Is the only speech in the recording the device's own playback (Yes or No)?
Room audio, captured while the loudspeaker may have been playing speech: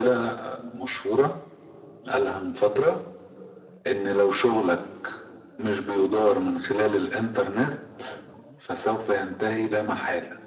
Yes